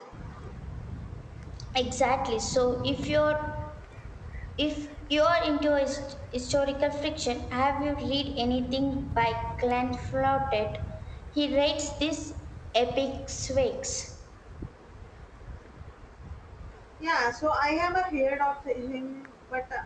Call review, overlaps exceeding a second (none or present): none